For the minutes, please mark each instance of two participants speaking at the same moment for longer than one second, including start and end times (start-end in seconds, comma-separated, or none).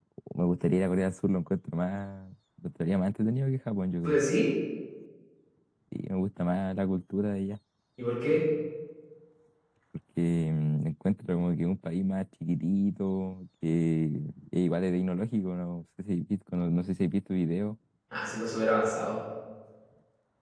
none